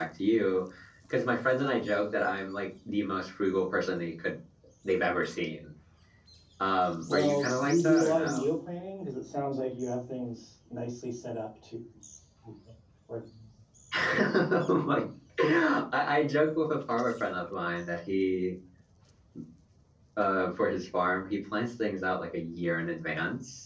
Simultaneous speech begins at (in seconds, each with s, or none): 7.1 s